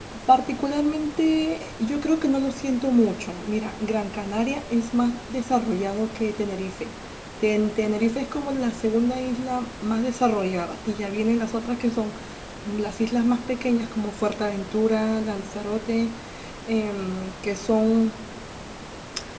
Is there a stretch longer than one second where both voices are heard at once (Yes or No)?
No